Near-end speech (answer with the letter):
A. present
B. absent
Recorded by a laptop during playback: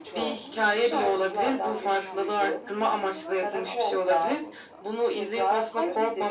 A